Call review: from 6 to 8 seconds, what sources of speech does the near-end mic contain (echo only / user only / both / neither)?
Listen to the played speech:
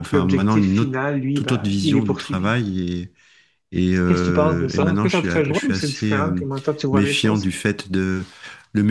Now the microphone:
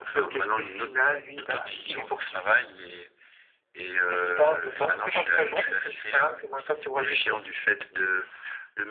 echo only